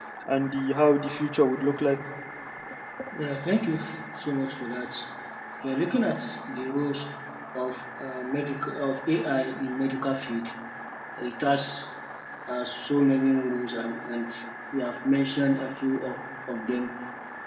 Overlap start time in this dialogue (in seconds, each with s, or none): none